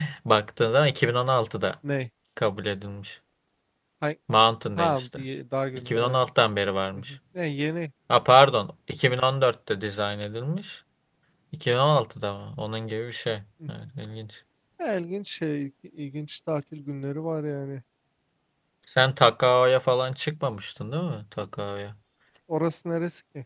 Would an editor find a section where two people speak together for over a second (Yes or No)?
No